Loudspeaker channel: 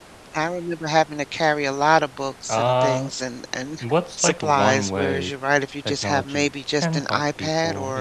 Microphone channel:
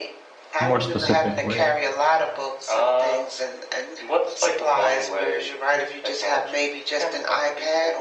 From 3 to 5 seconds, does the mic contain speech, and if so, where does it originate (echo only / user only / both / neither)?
echo only